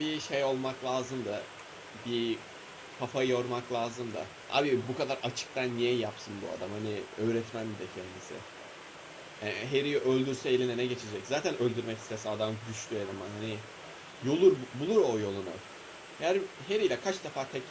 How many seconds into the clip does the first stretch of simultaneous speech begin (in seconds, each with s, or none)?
none